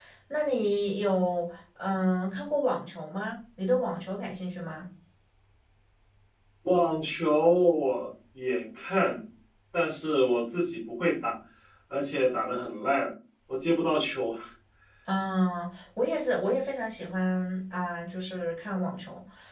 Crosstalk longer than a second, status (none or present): none